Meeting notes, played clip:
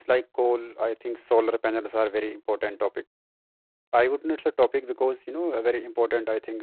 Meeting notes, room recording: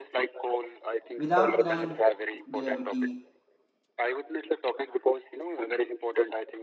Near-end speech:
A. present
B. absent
A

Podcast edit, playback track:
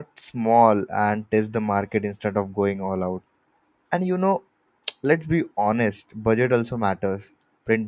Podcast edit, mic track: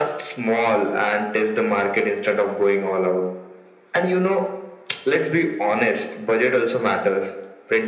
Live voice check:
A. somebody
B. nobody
B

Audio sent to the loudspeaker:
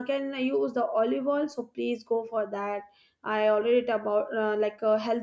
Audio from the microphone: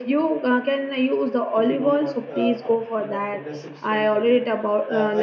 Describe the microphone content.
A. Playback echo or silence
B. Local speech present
B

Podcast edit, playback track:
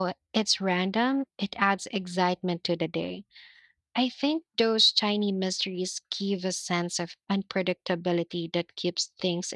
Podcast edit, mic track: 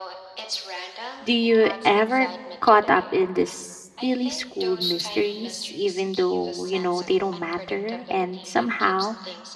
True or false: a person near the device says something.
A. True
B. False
A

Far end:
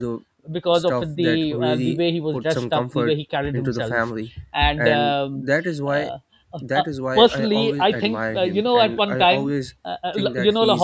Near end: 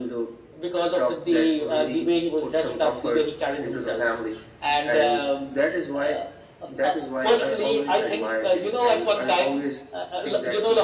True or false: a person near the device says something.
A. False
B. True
A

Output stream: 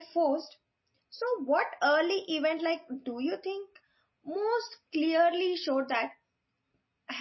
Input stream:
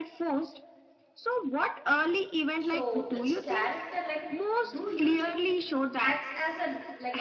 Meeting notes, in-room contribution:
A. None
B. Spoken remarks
B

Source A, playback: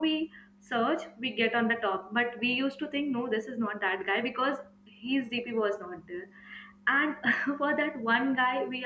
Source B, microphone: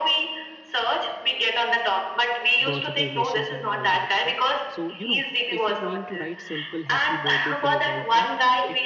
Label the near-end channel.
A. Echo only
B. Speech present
B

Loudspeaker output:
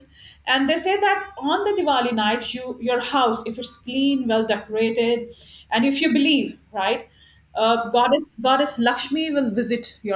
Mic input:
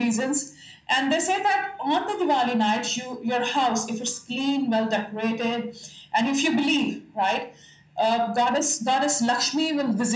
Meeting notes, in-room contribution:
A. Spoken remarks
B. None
B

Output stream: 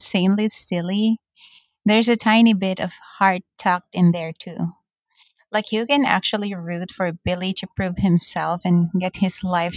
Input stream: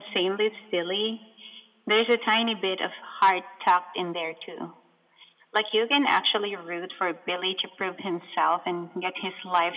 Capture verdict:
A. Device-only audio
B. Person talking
A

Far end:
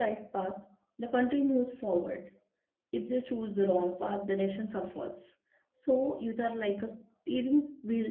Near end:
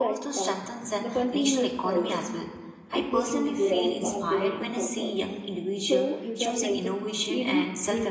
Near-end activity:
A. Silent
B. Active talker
B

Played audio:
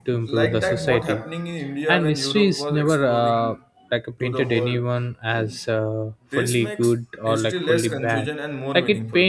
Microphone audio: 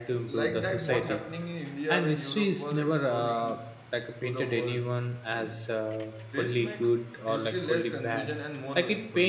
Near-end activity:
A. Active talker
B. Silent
B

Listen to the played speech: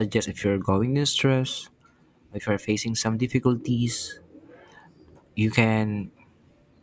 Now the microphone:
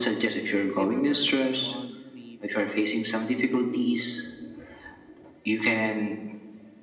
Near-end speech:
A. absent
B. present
B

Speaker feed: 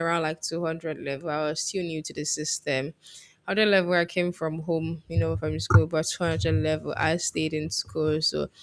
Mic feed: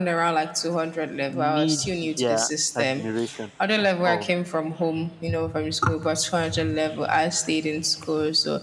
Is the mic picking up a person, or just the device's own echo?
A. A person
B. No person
A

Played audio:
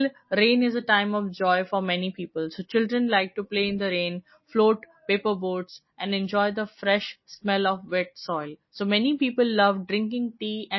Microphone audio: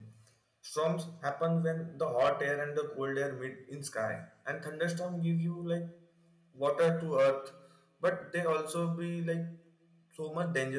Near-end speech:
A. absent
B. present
B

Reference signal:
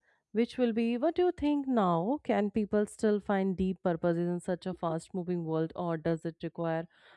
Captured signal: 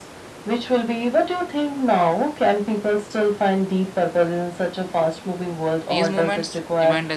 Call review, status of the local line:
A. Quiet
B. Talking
B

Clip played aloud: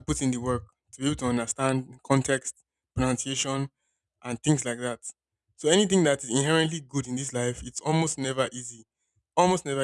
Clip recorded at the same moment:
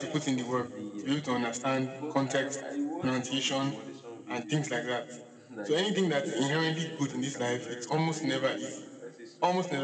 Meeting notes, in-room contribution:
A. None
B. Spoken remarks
B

